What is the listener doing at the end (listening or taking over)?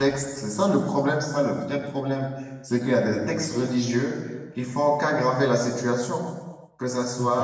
taking over